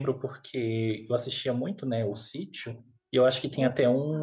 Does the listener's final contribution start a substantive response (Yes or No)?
No